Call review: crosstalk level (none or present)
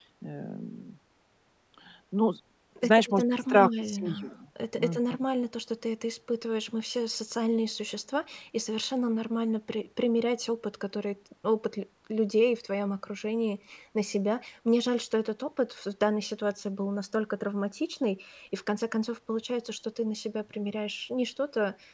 present